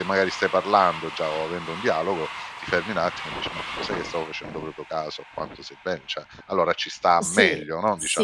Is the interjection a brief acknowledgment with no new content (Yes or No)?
No